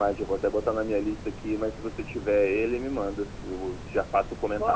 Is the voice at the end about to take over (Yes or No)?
Yes